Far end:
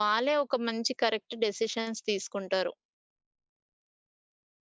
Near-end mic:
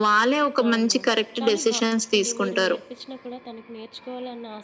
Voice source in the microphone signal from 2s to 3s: both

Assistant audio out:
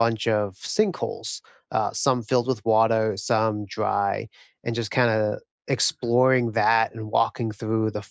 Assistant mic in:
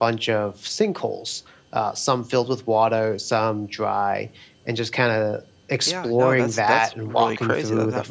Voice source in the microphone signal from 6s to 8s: both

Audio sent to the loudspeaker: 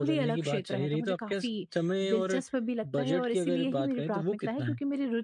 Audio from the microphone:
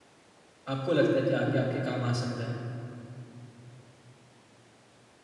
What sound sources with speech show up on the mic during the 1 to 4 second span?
user only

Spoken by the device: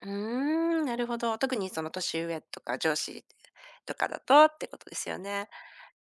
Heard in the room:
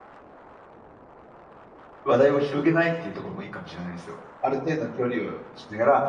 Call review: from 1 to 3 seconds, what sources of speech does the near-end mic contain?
user only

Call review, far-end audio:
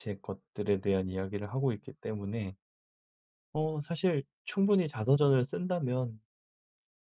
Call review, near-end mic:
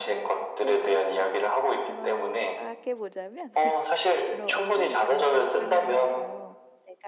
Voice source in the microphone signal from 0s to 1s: both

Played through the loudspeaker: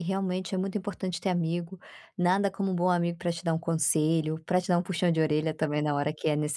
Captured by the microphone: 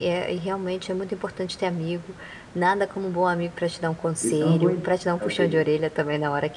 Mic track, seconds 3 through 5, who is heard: both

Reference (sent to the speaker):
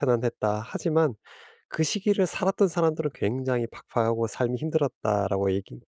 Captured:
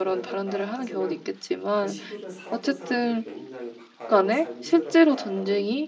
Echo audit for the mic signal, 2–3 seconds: both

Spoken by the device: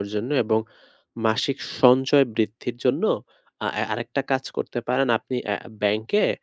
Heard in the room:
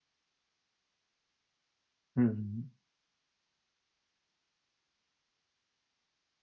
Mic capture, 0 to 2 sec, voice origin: neither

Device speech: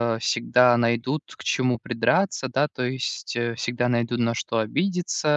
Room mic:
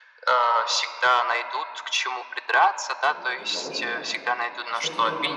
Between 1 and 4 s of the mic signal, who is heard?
both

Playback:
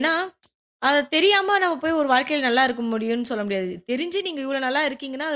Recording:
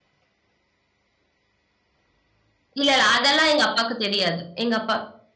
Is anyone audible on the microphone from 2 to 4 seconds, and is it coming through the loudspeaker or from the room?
user only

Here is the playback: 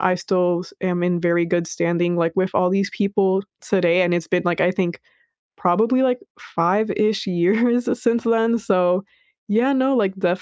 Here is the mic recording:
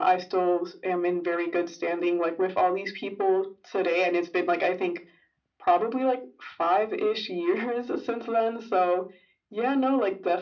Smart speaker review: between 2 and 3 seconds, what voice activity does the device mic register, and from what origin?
echo only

